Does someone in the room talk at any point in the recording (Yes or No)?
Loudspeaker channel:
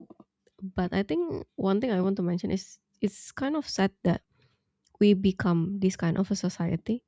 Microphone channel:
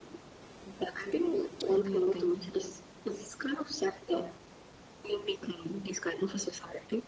Yes